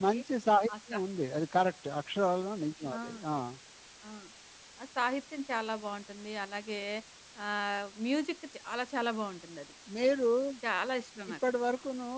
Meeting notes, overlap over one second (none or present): none